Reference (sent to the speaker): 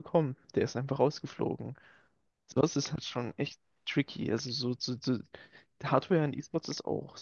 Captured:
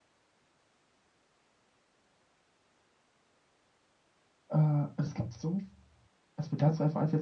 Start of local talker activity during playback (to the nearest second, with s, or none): 4 s